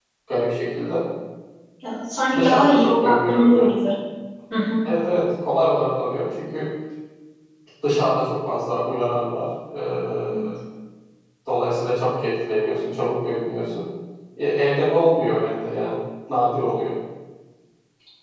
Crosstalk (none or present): present